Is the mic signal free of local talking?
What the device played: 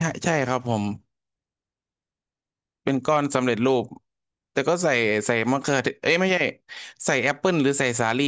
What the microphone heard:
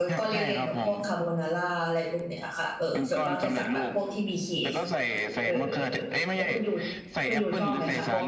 No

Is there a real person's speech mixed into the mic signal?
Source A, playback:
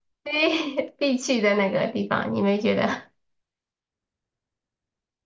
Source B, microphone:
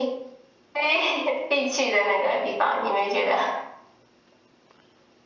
No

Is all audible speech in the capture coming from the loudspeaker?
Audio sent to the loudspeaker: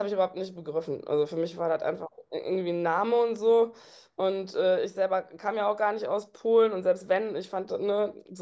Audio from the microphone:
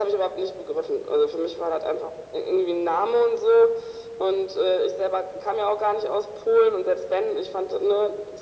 Yes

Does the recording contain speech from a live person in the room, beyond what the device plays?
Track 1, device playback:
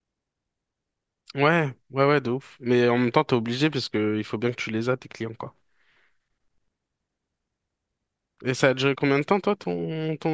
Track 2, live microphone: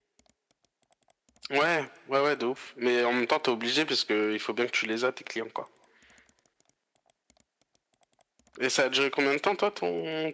No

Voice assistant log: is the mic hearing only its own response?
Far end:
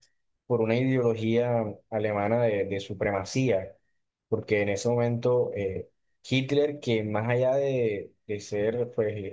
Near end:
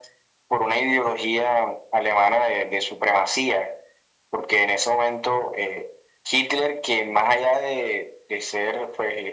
Yes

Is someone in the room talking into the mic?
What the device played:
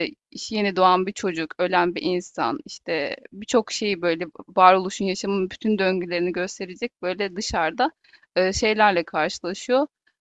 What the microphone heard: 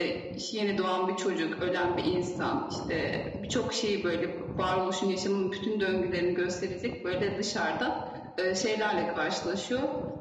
No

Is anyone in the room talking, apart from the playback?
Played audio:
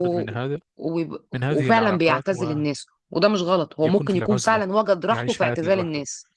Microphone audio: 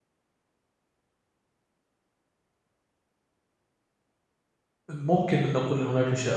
Yes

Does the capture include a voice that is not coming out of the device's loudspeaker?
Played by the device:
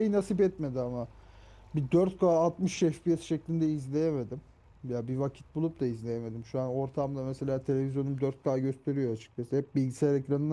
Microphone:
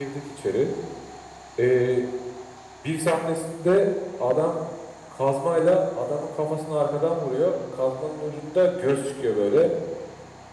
Yes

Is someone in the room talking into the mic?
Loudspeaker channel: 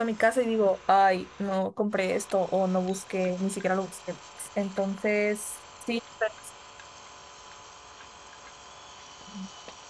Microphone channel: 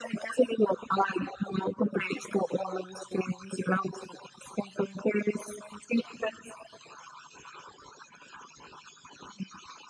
No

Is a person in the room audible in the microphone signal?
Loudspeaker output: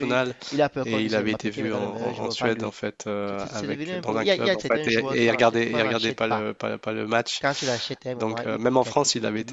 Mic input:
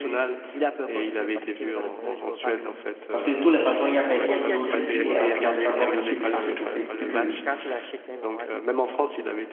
Yes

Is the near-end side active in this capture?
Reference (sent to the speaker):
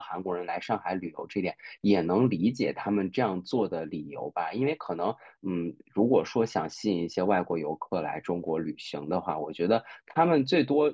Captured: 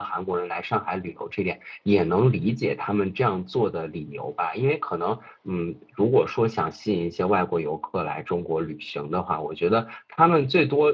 No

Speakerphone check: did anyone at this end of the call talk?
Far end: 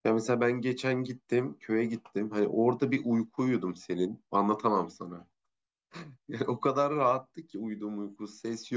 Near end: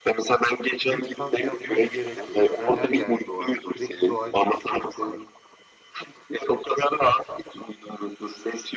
Yes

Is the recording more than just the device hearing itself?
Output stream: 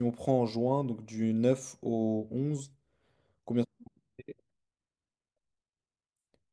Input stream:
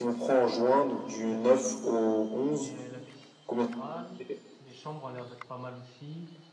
Yes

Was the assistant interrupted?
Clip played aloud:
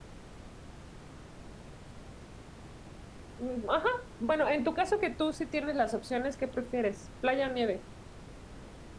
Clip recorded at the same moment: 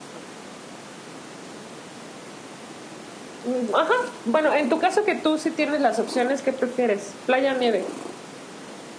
No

